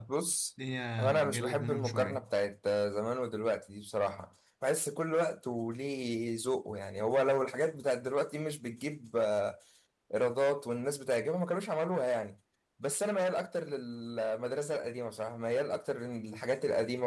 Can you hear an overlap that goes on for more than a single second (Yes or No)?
Yes